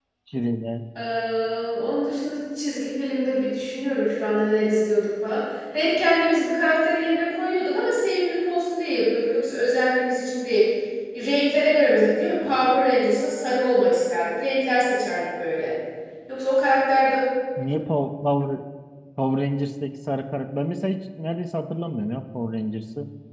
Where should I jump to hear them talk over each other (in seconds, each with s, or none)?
none